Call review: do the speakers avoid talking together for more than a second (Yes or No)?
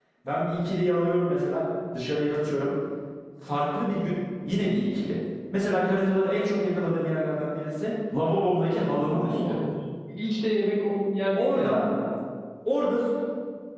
Yes